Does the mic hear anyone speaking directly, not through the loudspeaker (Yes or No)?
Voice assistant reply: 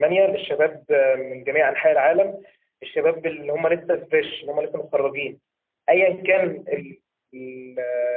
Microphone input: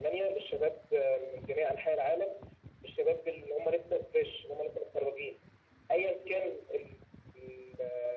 No